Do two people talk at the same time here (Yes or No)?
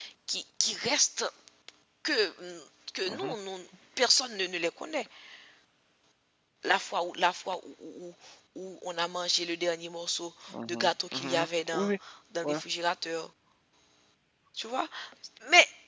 Yes